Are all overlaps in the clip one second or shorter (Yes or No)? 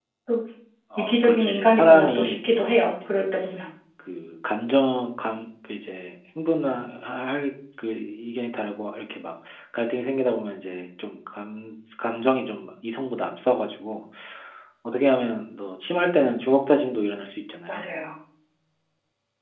No